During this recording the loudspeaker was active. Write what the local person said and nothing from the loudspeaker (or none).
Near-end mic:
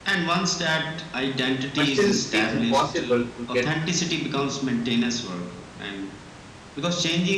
but still feels impossible to get,